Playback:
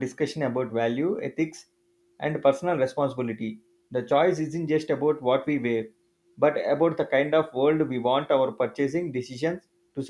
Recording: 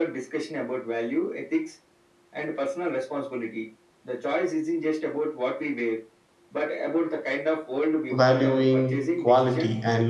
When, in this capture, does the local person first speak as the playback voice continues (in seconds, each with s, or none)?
8.1 s